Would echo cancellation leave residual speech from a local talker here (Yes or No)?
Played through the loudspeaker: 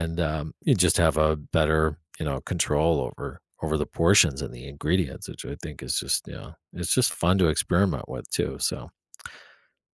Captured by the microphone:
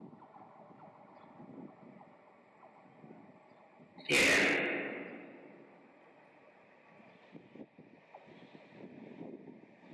Yes